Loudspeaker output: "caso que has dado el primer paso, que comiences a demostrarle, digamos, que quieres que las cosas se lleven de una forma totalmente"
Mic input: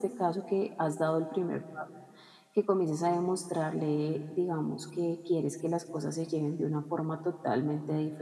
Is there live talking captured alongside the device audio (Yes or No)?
No